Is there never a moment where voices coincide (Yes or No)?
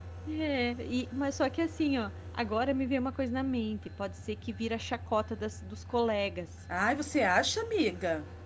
Yes